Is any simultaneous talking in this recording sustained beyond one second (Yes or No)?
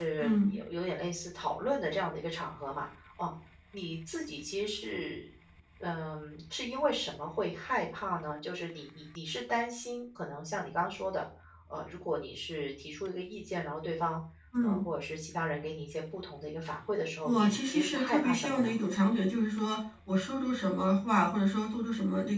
Yes